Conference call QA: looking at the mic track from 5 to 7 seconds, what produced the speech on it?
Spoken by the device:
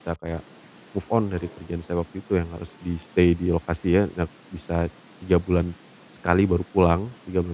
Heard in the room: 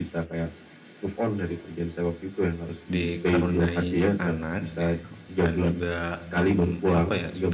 both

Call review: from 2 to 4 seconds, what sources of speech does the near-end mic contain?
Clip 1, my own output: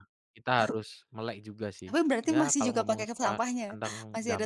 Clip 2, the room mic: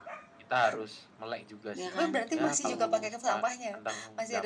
both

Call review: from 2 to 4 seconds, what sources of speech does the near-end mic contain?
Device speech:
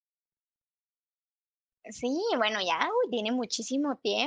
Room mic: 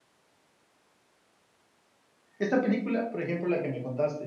user only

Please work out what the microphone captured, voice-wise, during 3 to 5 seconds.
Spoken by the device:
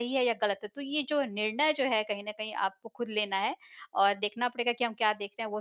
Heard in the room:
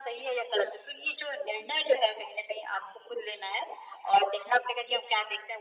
echo only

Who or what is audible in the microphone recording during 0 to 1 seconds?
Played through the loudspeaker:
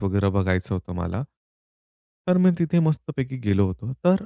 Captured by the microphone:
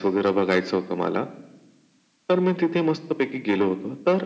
echo only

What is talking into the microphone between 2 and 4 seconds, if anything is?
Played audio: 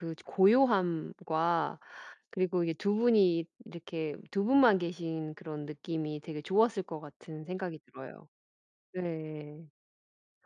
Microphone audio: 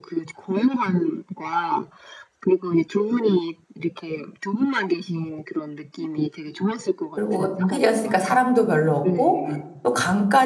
echo only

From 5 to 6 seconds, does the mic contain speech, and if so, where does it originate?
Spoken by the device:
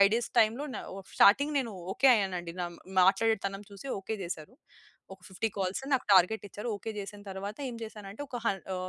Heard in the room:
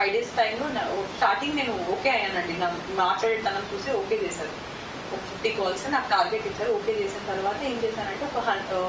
echo only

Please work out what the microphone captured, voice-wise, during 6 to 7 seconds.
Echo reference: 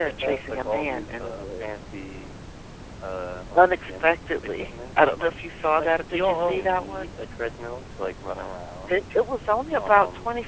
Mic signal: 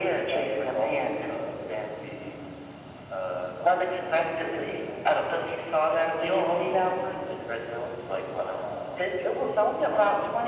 echo only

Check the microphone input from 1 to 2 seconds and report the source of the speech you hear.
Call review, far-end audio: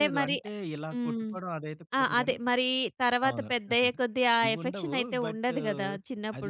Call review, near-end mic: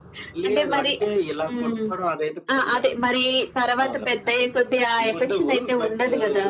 echo only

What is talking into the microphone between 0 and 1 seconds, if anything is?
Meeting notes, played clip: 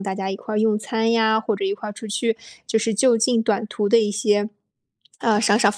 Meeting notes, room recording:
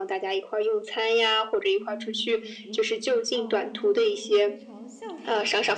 echo only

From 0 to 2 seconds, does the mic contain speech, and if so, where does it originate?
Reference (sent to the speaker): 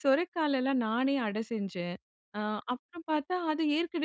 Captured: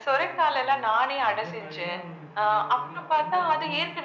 both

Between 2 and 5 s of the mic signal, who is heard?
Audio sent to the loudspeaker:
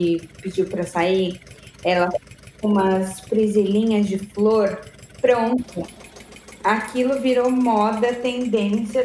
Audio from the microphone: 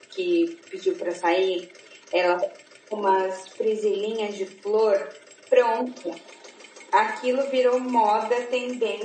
echo only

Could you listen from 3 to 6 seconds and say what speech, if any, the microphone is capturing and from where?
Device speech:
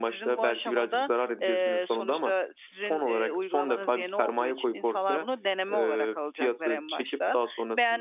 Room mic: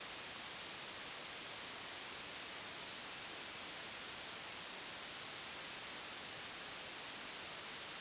neither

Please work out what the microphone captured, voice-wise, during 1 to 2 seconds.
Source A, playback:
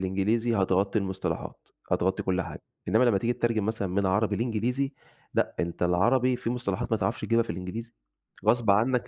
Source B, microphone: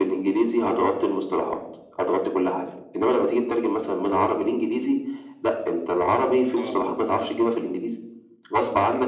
echo only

